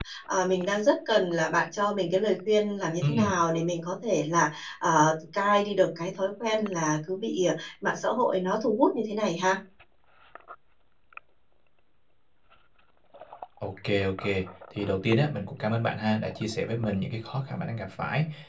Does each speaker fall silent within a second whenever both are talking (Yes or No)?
Yes